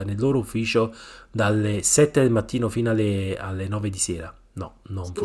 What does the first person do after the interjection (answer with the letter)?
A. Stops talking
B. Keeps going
A